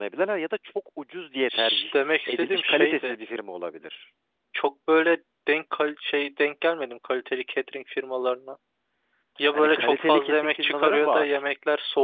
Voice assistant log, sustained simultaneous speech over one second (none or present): present